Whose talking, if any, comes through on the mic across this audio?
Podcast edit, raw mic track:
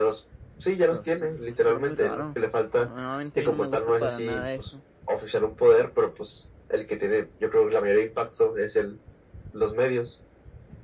both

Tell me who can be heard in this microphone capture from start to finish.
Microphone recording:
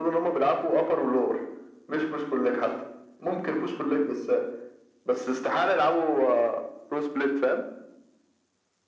echo only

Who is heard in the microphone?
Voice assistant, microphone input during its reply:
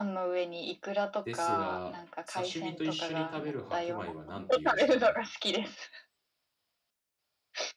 both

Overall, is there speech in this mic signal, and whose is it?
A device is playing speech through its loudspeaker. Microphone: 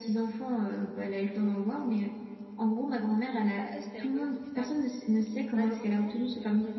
both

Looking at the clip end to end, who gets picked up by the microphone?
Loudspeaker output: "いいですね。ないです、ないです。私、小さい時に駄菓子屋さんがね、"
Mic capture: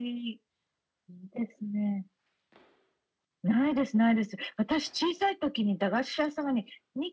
echo only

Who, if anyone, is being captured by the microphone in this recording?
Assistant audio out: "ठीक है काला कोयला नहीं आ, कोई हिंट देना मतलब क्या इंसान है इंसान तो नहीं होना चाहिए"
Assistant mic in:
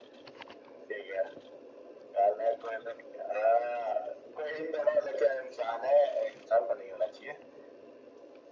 echo only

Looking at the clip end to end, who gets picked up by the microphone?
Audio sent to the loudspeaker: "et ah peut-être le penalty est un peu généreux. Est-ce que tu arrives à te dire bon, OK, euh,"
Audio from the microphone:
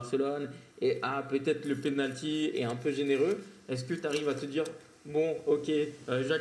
echo only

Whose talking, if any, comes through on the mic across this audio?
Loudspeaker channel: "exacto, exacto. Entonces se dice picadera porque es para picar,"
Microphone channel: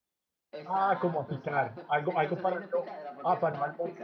both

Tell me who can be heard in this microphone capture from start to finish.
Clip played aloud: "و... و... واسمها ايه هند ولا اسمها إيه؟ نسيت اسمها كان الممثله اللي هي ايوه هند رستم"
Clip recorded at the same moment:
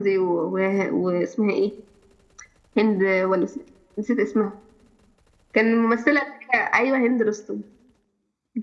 echo only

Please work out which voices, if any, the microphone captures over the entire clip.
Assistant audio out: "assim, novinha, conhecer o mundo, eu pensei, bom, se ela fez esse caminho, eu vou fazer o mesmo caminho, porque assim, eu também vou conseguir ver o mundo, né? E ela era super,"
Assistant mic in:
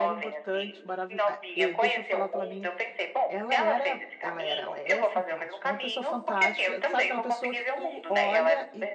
both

